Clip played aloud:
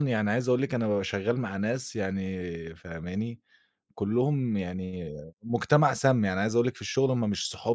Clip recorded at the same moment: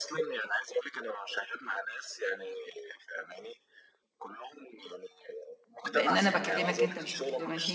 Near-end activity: present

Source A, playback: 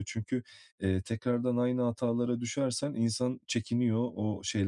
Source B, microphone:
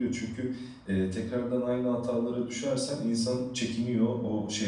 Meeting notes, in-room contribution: none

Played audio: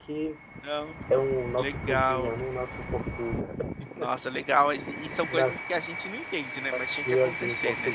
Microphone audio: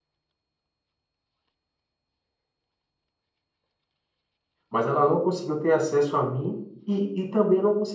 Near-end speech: present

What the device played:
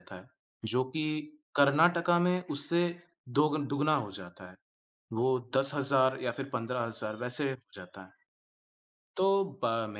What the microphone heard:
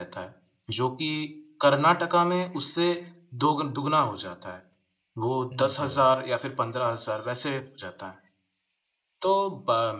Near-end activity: present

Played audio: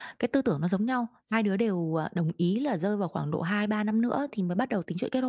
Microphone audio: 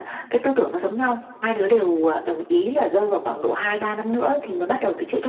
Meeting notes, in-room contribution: none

